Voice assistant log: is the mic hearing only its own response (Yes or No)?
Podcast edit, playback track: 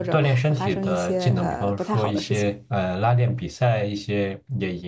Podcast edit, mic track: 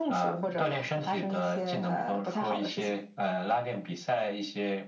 Yes